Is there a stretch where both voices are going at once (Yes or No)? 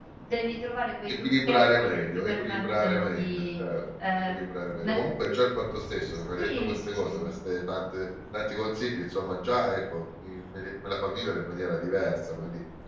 Yes